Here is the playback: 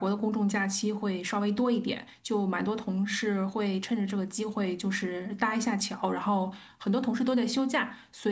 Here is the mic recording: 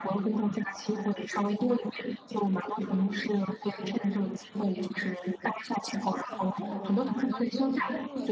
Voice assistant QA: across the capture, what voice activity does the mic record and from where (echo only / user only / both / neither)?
both